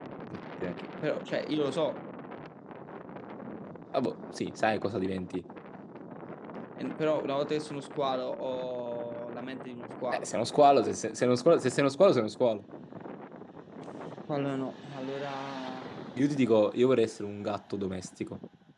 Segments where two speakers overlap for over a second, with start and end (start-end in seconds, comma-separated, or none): none